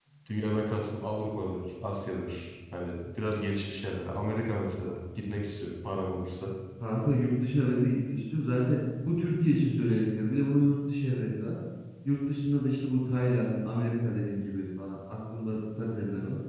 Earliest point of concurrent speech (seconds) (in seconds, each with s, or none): none